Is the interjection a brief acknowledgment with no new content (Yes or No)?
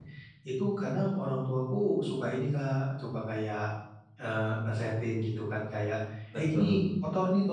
Yes